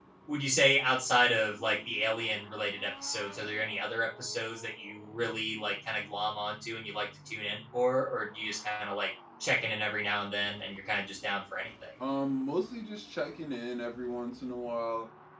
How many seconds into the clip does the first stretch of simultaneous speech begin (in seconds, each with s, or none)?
none